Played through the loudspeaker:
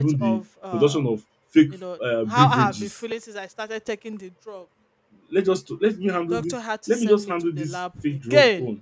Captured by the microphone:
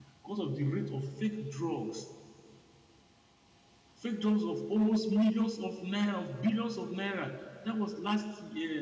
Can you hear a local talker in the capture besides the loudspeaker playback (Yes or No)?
Yes